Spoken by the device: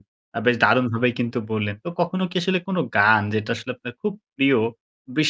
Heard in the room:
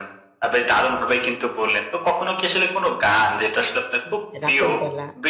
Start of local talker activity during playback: 4 s

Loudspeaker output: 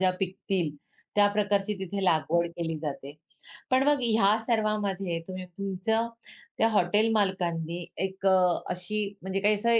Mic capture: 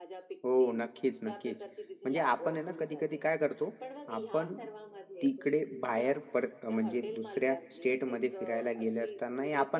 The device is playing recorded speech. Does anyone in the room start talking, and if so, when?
0 s

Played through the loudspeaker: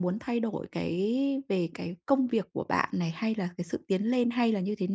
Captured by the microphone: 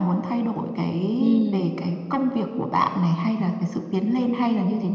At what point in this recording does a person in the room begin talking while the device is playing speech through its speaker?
1 s

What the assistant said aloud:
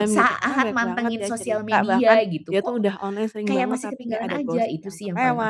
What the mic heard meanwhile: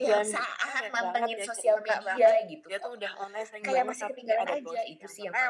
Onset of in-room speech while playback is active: none

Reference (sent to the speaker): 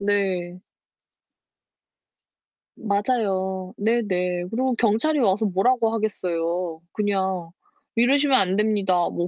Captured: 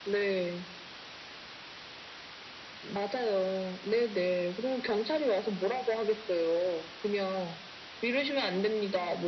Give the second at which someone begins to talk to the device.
none

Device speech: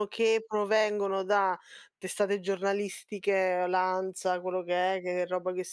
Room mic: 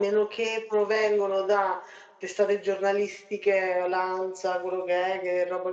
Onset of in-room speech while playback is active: none

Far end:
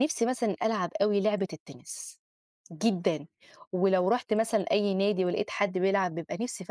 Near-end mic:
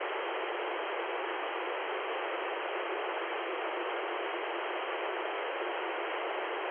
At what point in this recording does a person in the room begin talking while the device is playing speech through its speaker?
none

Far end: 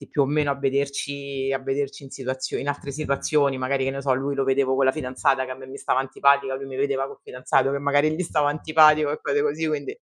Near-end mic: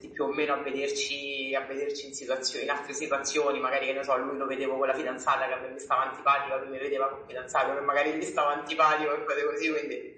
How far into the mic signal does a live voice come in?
none

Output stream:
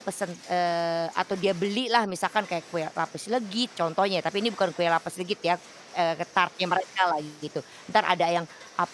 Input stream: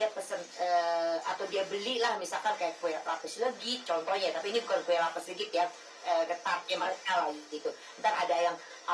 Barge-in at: none

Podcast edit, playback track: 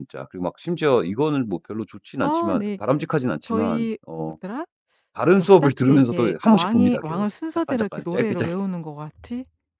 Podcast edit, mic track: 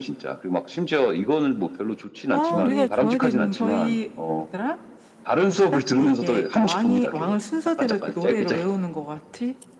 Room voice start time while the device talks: 2 s

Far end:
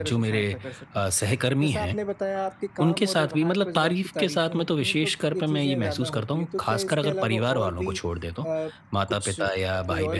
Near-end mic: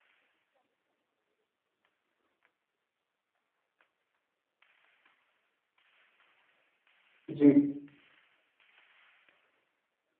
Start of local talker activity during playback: 7 s

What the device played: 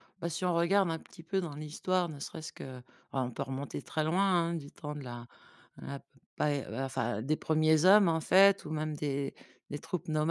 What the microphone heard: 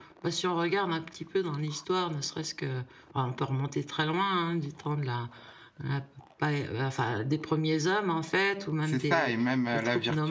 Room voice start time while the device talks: 9 s

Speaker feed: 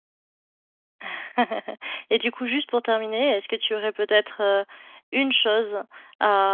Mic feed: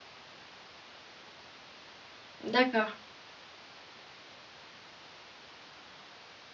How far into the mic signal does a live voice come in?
2 s

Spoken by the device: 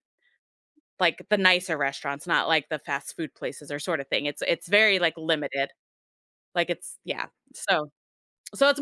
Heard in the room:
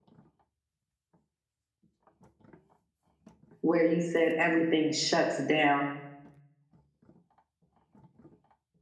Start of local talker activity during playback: 4 s

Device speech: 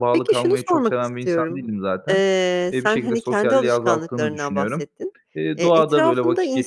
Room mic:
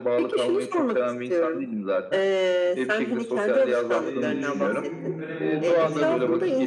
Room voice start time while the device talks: 4 s

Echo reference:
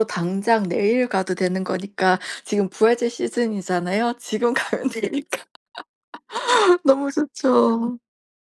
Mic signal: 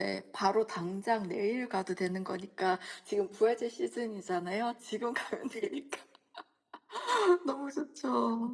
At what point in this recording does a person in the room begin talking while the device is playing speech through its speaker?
none

